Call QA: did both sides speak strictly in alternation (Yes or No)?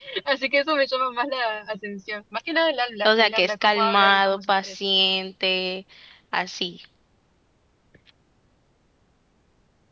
No